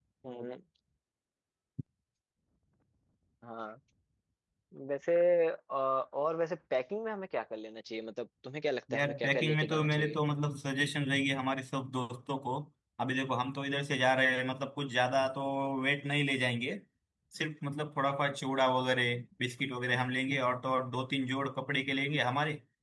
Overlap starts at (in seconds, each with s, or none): 8.9 s